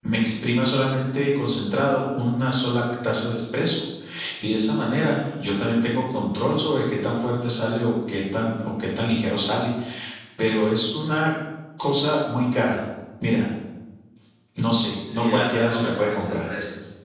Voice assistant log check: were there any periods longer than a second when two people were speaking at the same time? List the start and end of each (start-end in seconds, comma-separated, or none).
15.1-16.4